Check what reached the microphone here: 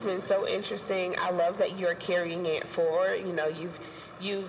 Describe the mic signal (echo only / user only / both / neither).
echo only